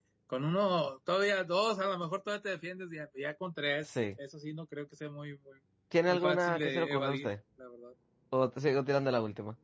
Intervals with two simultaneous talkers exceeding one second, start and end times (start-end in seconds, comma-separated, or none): 6.1-7.3